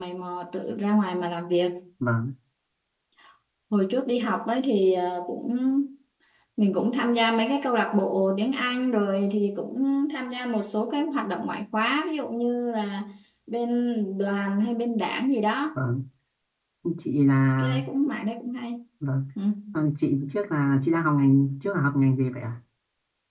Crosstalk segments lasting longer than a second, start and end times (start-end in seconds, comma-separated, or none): none